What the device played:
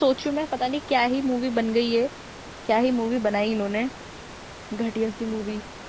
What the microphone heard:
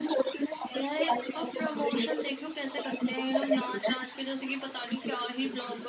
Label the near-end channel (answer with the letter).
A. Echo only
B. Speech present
B